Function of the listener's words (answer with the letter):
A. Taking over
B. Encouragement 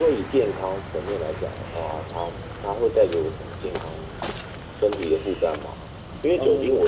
B